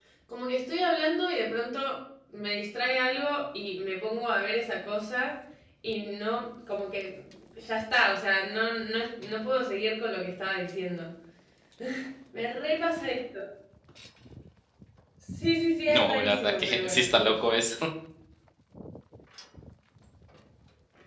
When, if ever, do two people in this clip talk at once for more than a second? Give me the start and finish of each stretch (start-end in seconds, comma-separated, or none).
15.9-17.6